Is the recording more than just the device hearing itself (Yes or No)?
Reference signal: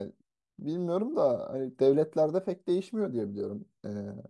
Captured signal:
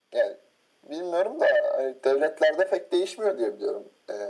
No